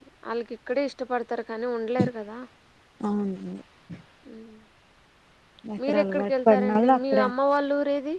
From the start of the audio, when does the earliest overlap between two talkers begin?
5.9 s

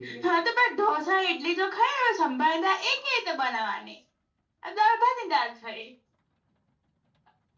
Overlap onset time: none

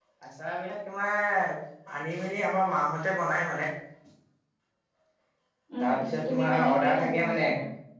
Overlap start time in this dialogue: 5.8 s

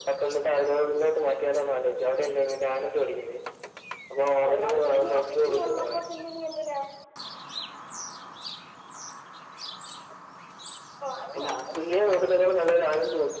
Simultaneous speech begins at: 4.5 s

